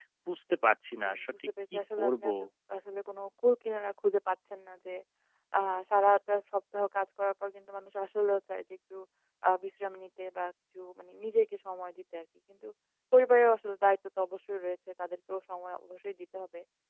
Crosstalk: present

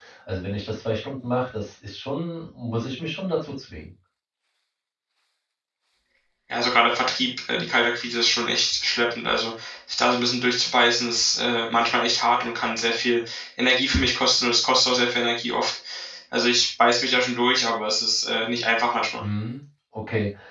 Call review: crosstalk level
none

